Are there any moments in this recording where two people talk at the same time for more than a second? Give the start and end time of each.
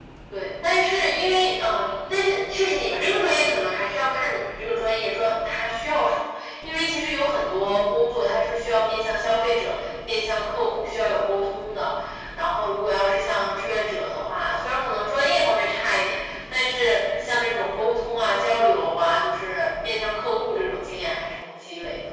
none

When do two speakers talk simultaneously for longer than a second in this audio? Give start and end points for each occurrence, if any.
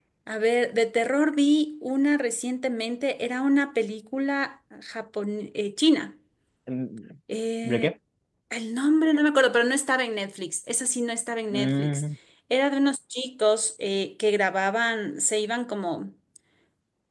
none

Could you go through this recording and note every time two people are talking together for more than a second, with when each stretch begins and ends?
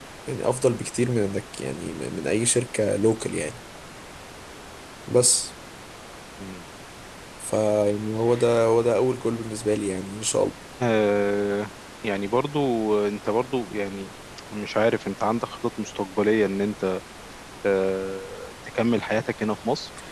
none

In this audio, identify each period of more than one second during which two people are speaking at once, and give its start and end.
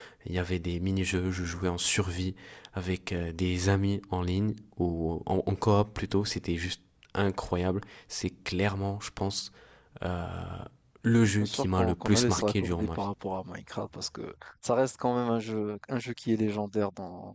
11.4-13.1

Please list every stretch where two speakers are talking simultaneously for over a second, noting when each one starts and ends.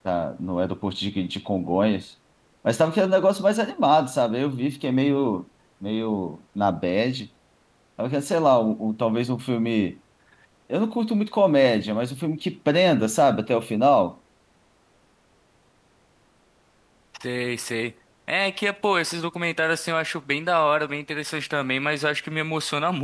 none

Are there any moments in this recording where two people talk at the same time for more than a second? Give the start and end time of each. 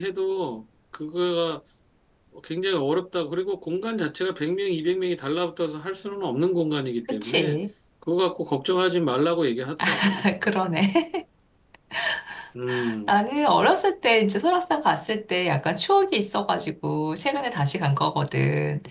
none

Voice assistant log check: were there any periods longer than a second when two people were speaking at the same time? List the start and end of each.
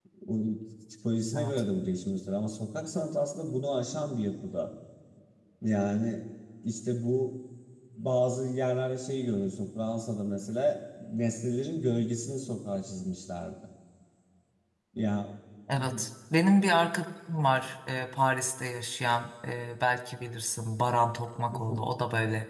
none

